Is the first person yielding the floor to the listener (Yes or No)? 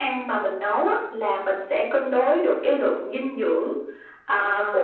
No